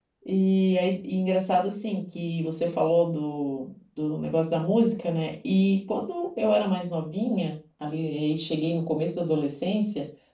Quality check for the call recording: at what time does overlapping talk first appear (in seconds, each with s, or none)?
none